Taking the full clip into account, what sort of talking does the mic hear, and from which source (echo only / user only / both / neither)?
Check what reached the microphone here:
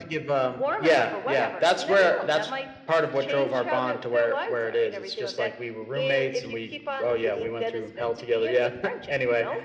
echo only